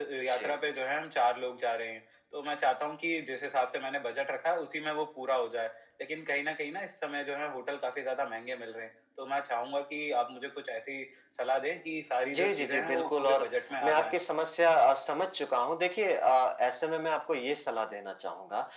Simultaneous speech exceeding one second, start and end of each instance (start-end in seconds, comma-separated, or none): 12.3-13.5